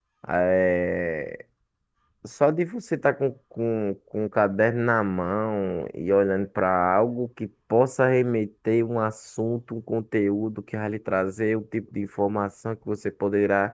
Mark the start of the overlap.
none

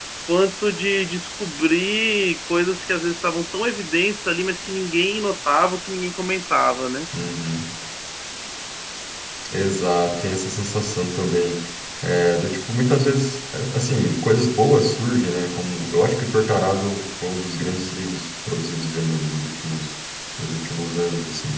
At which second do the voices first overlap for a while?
none

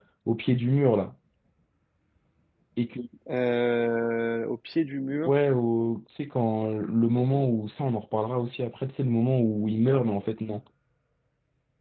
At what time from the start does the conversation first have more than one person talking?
none

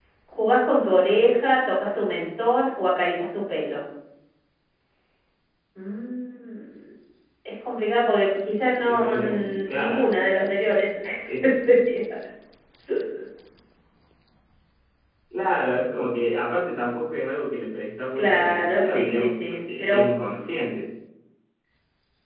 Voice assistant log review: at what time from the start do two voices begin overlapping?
8.8 s

